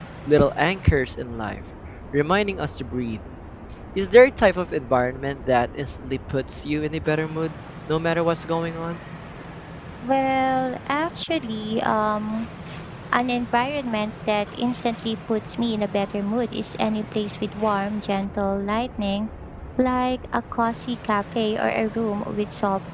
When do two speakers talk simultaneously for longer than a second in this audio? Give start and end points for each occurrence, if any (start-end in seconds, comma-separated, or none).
none